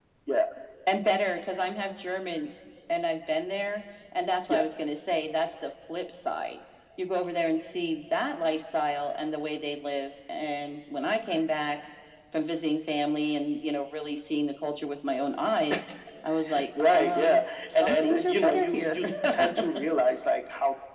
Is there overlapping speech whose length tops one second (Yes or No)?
Yes